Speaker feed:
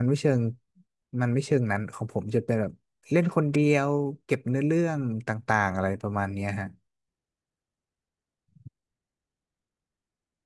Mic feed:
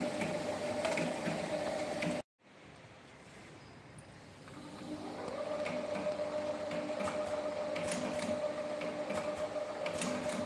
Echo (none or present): none